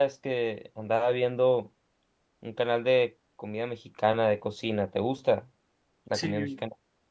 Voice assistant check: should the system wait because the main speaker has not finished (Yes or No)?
No